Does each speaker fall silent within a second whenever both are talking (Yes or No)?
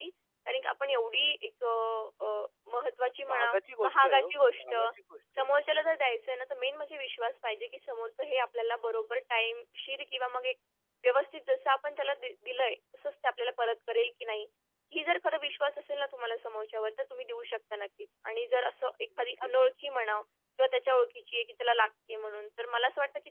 No